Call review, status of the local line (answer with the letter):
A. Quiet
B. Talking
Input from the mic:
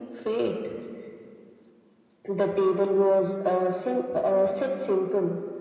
A